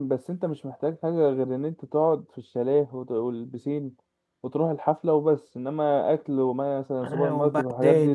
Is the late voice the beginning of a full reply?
Yes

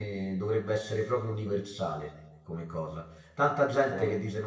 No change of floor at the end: Yes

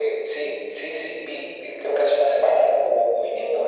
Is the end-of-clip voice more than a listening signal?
No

